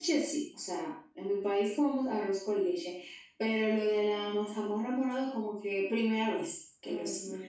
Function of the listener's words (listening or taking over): taking over